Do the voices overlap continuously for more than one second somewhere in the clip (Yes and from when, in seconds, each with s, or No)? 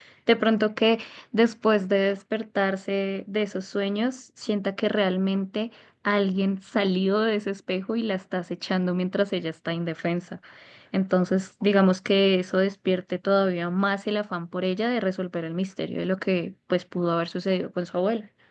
No